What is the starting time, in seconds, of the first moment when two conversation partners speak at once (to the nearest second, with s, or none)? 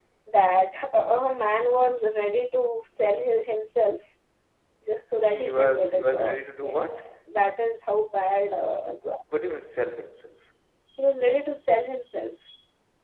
5 s